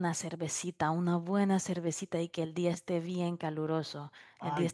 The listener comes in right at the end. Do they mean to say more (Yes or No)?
No